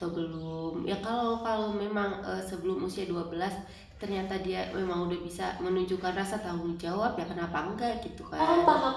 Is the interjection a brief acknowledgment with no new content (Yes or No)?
No